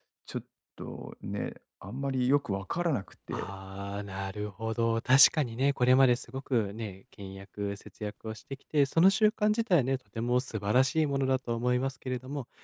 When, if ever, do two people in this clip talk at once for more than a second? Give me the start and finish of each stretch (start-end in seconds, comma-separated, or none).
none